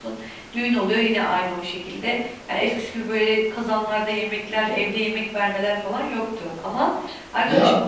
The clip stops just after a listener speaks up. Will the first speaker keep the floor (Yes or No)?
Yes